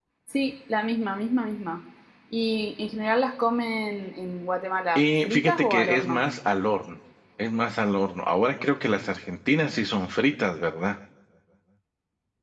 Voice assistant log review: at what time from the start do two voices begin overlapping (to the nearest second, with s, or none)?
5 s